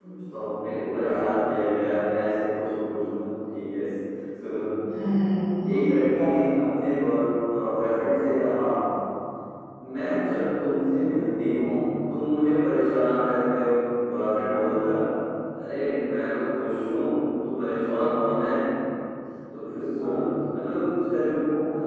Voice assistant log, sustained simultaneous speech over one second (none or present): none